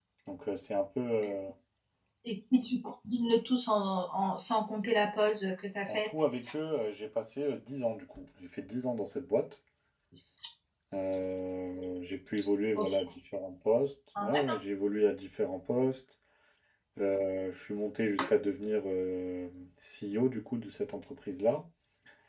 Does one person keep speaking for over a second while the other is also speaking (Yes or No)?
No